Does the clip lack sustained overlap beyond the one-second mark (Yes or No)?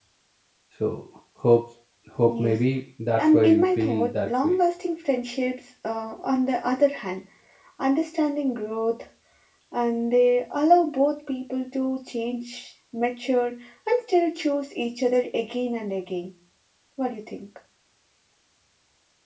No